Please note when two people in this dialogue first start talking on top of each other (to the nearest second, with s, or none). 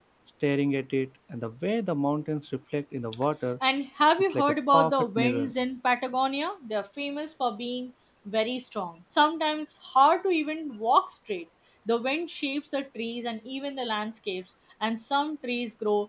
4 s